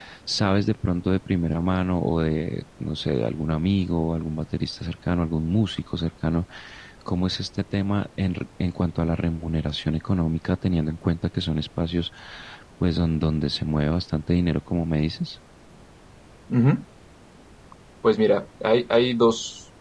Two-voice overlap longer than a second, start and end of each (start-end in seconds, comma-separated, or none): none